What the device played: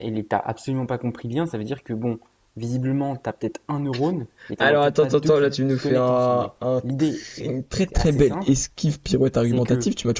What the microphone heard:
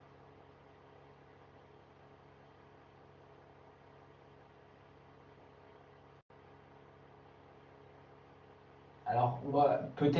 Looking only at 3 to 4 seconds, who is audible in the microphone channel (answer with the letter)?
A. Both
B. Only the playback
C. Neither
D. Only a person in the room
C